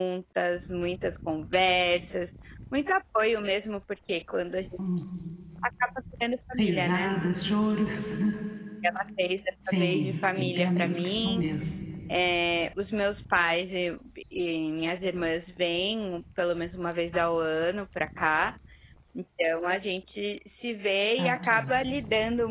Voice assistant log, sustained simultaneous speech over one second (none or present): present